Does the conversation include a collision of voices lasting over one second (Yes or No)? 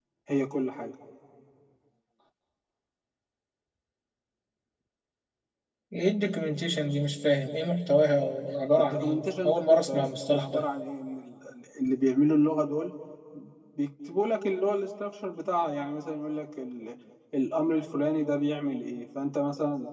Yes